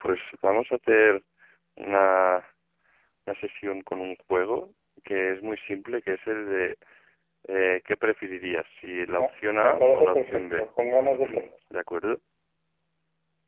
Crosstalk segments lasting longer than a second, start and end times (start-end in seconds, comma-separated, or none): 9.1-10.6